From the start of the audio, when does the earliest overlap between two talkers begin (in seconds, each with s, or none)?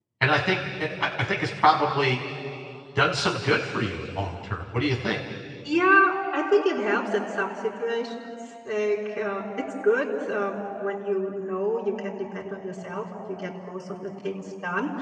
none